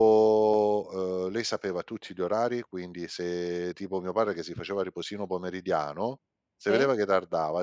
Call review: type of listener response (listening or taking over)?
listening